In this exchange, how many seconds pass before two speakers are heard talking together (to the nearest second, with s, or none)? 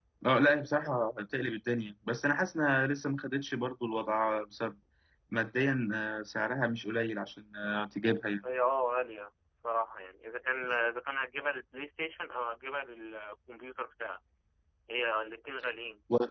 none